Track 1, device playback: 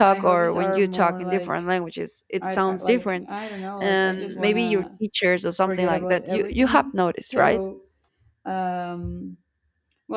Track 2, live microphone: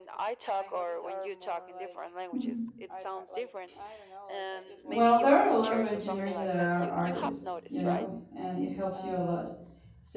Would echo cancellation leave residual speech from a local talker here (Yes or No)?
Yes